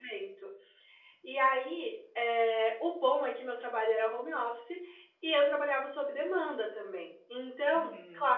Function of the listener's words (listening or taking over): listening